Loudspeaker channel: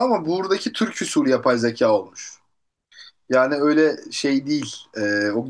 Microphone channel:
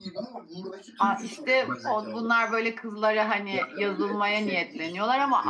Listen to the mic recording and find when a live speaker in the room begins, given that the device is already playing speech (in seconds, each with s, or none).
1.0 s